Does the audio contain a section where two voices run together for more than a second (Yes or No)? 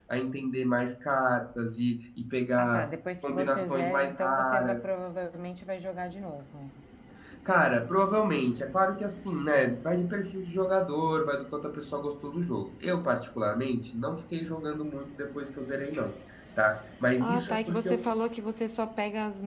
Yes